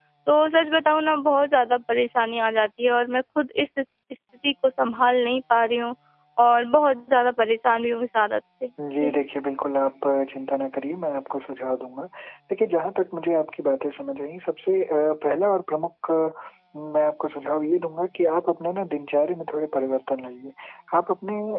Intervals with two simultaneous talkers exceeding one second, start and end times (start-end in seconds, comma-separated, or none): none